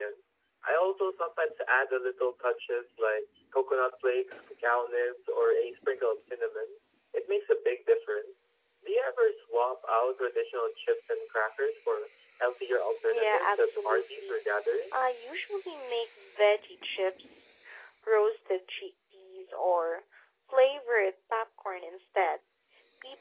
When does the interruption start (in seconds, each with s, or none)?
13.1 s